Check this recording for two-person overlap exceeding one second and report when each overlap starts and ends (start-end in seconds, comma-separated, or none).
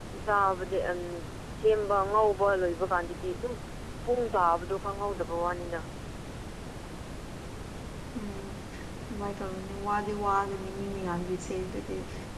none